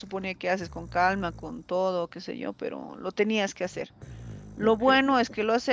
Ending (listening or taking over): listening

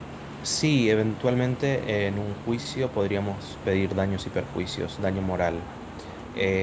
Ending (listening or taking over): taking over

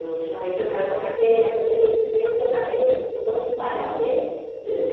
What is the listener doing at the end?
listening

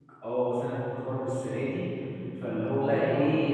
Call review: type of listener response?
listening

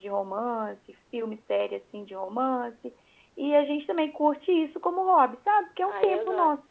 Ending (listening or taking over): taking over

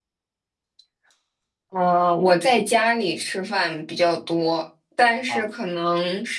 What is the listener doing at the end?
listening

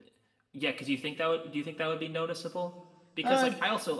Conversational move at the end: listening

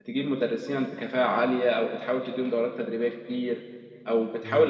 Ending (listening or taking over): listening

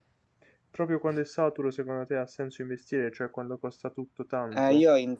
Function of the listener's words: taking over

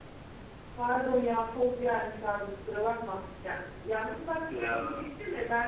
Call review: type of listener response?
listening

